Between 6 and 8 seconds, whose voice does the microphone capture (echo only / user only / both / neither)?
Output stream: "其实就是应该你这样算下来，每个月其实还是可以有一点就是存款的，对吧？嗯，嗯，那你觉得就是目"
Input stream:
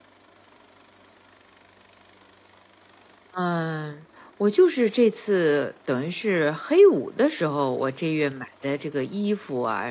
user only